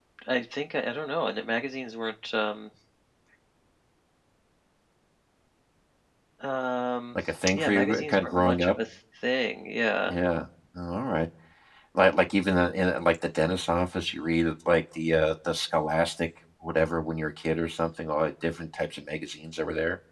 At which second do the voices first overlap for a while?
7.5 s

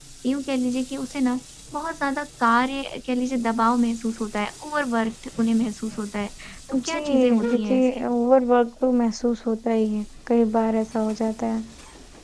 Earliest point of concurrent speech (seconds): 6.8 s

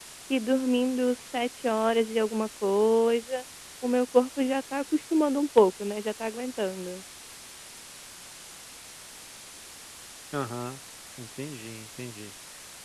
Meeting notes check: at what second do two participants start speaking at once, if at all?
none

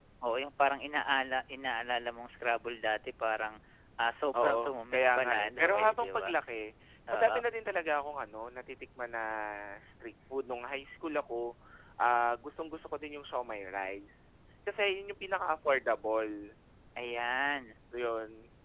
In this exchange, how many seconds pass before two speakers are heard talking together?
4.4 s

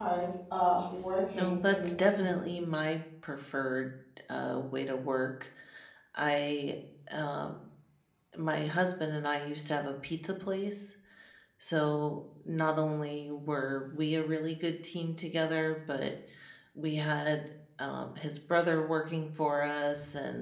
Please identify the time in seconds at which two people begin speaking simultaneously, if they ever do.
1.3 s

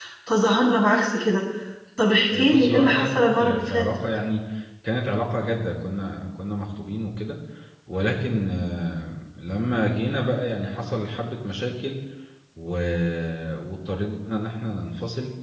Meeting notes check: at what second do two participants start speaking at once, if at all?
2.3 s

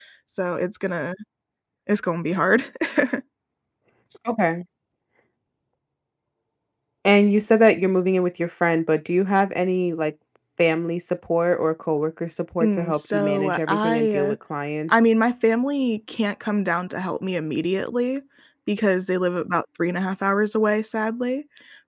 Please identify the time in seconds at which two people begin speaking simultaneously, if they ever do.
12.6 s

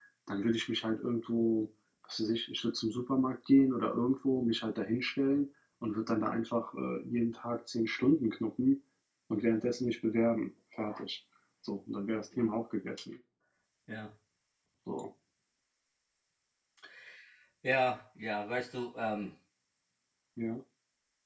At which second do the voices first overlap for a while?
none

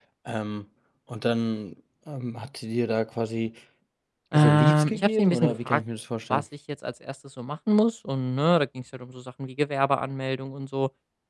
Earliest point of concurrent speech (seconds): 4.3 s

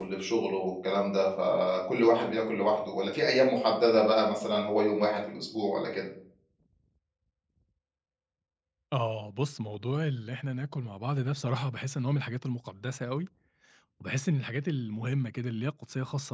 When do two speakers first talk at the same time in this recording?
none

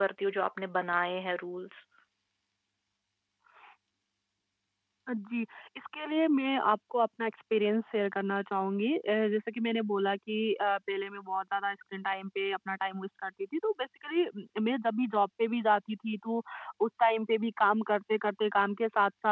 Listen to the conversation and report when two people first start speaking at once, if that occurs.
none

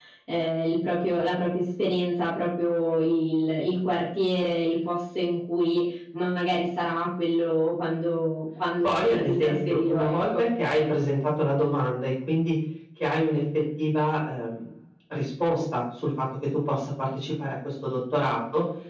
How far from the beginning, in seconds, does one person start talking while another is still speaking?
8.8 s

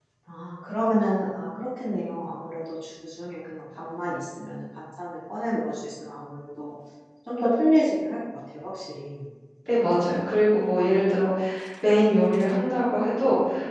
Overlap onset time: none

